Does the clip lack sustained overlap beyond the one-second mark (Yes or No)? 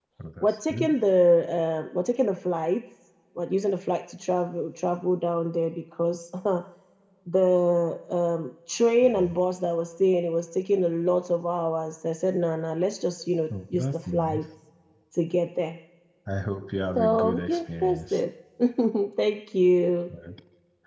No